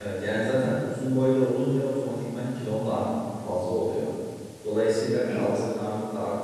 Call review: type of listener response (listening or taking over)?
listening